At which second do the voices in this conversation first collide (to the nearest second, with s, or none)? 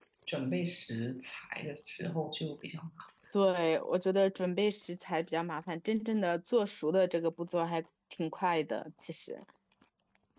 none